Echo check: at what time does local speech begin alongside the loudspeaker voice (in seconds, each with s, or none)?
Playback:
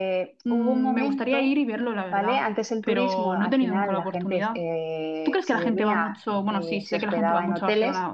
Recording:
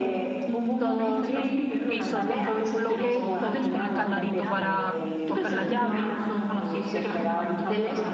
0.8 s